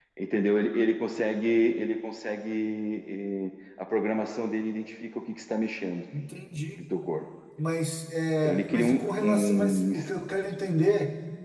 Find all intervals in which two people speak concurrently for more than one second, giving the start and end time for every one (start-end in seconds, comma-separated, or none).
8.4-10.1